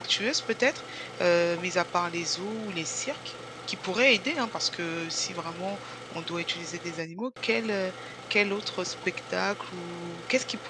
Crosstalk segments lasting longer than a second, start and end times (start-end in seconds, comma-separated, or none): none